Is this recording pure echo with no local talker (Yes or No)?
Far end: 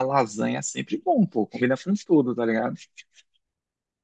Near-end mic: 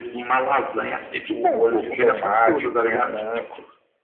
No